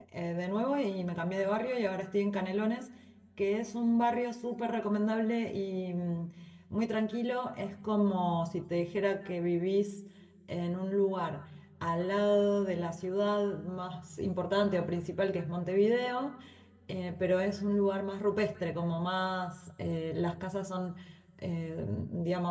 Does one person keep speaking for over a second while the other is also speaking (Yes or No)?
No